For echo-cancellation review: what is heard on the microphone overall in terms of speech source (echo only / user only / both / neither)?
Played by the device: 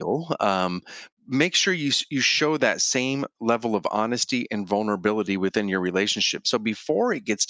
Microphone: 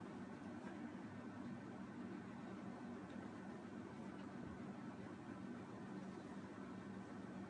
neither